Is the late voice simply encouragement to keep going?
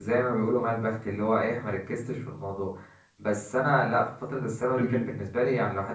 Yes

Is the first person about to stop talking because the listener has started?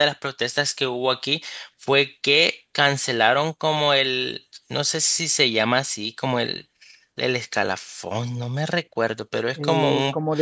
Yes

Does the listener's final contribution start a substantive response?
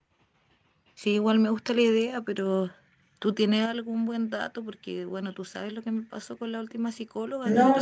Yes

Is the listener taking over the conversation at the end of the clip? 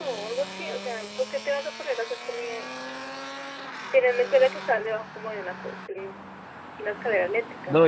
Yes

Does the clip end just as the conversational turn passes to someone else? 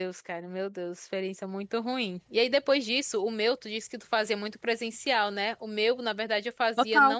No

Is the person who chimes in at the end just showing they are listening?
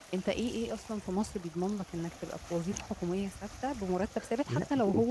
Yes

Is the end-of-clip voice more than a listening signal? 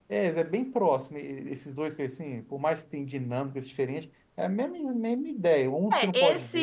Yes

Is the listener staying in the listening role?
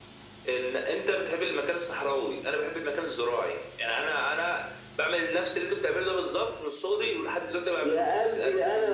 No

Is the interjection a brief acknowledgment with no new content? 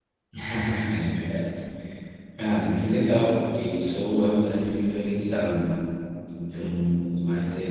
Yes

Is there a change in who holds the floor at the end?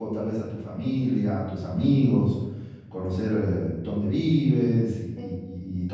Yes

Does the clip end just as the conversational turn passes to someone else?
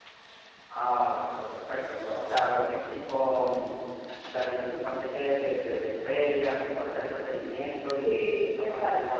Yes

